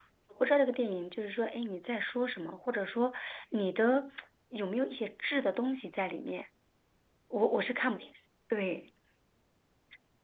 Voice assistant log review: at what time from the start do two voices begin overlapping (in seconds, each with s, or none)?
none